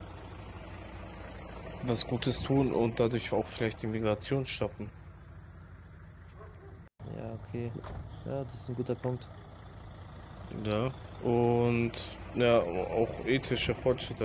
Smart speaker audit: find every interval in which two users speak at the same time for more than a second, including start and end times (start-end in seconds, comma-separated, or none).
none